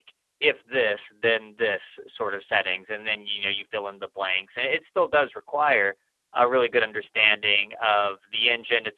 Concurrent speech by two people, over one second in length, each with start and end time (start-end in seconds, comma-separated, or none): none